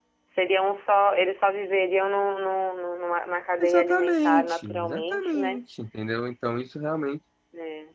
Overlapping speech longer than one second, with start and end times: 3.6-5.6

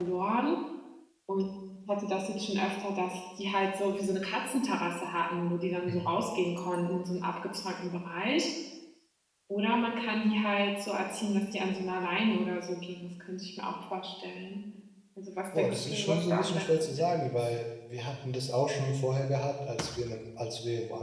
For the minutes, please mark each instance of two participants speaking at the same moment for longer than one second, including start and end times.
15.6-17.5

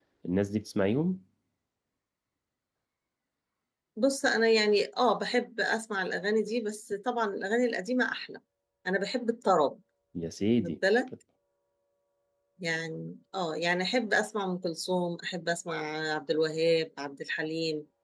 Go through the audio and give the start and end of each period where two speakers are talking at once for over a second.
none

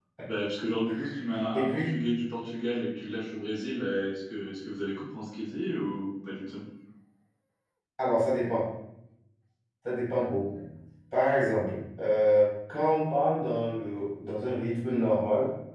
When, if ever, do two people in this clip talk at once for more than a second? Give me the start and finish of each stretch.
none

